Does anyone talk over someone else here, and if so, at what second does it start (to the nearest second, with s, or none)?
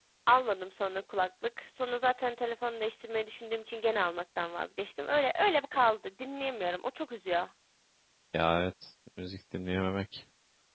none